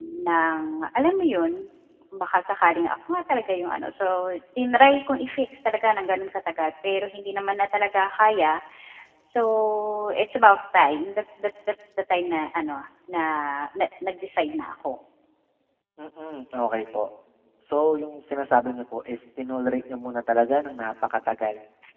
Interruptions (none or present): none